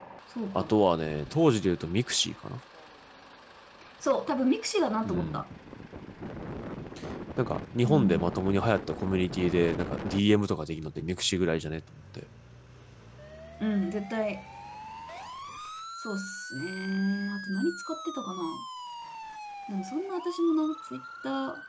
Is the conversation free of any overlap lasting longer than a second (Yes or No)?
Yes